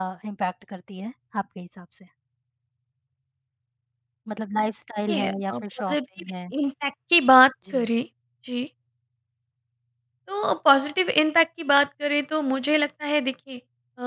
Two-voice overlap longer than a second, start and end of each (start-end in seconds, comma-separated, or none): 5.1-6.3